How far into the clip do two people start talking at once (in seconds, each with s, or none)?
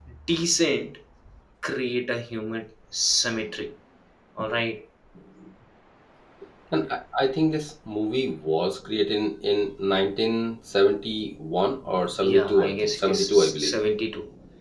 12.2 s